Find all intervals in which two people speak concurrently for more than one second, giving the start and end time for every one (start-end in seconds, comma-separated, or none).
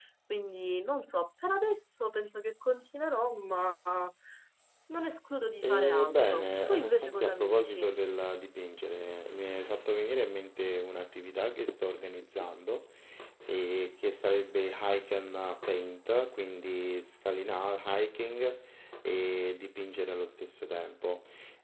5.6-7.9